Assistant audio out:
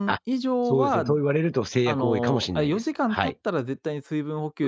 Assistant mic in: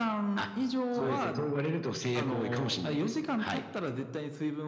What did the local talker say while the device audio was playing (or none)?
はい。